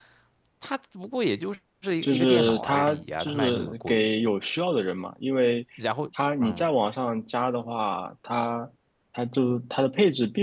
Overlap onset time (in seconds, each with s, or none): 2.0 s